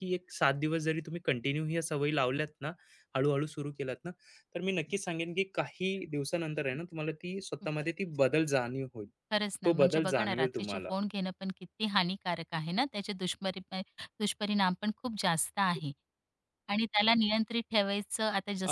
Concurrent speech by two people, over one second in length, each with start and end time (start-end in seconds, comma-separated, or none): 9.6-10.9